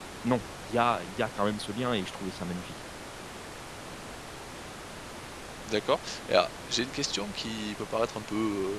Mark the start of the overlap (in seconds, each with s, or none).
none